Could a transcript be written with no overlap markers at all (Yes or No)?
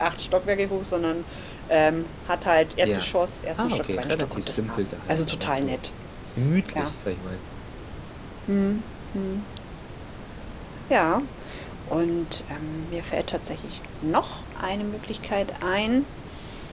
No